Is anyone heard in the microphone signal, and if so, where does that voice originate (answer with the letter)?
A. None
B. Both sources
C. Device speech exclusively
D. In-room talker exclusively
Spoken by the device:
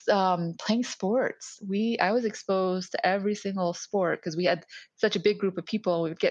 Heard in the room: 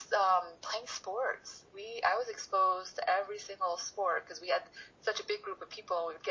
C